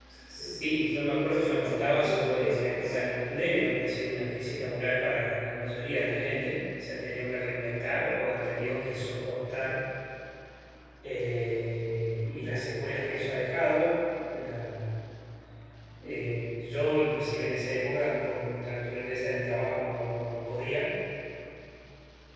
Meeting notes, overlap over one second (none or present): present